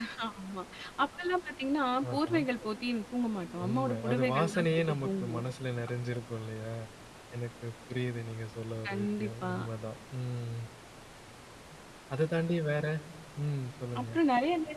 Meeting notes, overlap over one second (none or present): present